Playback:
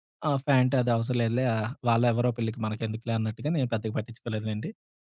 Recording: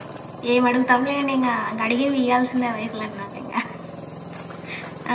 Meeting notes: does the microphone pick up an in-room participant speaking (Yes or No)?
Yes